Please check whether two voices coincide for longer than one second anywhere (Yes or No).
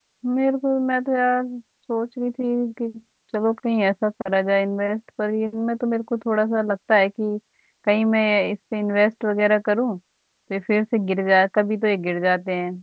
No